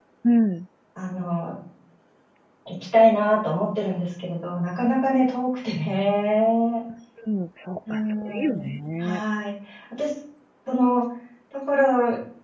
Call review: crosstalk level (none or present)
present